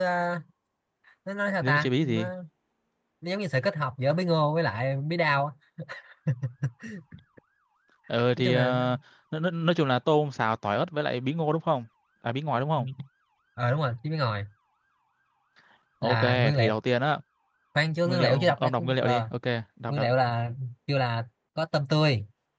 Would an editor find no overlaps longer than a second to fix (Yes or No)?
No